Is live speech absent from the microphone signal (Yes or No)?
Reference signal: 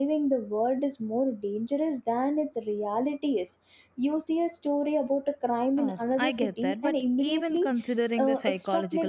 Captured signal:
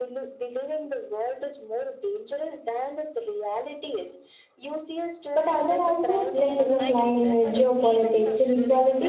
No